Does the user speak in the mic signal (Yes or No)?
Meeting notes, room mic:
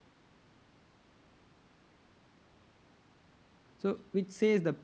Yes